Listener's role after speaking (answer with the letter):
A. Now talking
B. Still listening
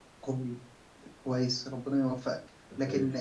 B